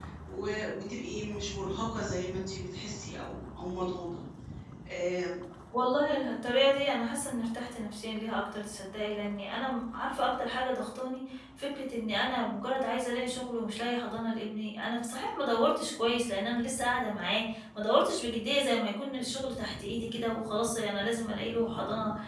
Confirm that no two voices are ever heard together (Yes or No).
Yes